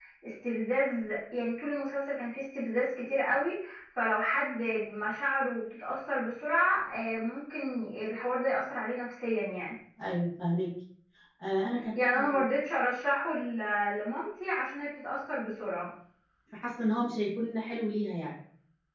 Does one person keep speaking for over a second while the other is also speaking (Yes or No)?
No